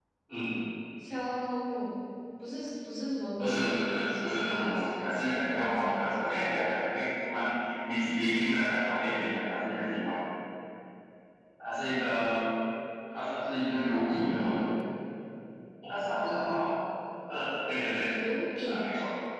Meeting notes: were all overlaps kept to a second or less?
No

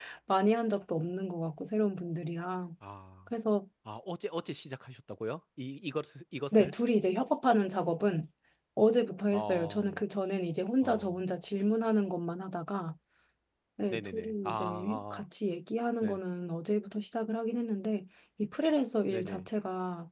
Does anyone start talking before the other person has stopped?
Yes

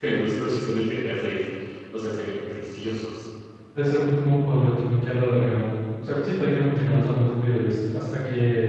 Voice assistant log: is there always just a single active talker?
Yes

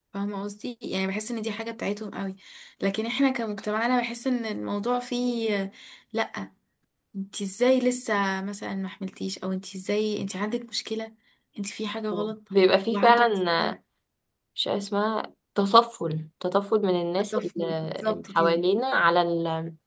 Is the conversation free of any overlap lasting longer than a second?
No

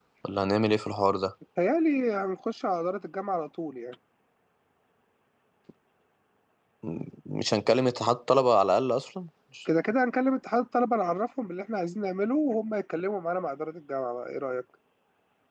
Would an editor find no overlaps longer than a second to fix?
Yes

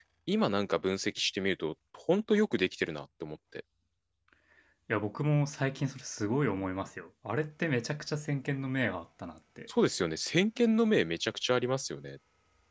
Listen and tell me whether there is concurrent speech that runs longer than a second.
No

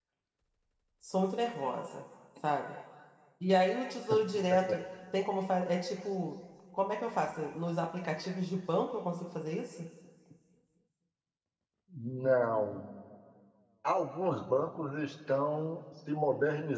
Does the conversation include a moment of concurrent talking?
No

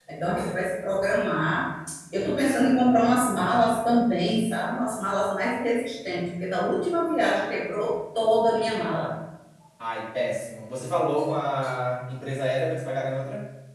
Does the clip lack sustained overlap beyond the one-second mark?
Yes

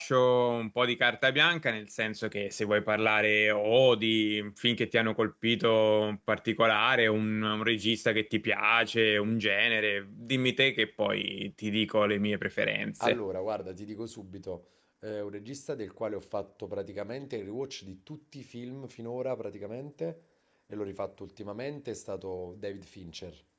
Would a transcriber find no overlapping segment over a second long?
Yes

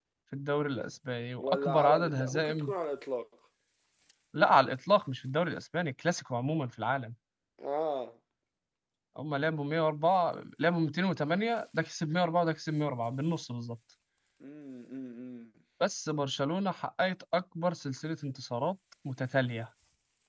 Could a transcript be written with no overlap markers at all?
No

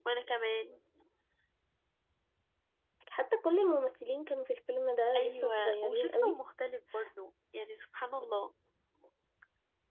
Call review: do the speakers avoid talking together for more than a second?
No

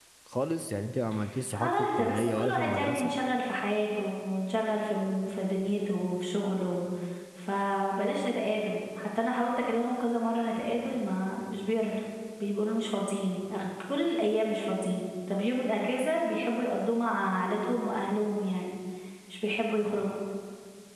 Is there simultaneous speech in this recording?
Yes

